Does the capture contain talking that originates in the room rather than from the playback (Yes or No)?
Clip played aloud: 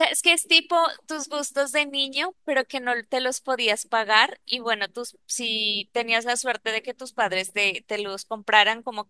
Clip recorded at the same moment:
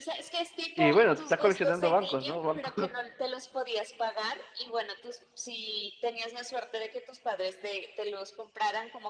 Yes